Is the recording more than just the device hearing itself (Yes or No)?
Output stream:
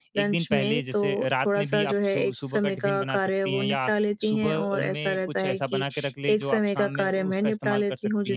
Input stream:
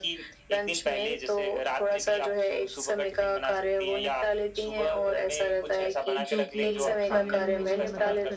Yes